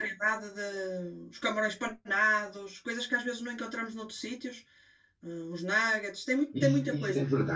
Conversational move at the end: taking over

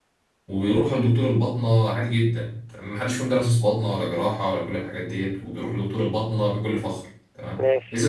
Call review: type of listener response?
listening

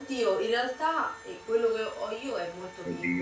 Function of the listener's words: taking over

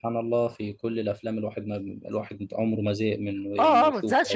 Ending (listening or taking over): taking over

